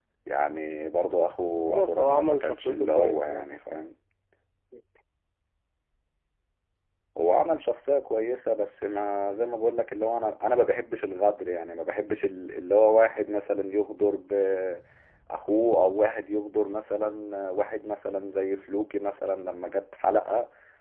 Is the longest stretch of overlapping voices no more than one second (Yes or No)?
No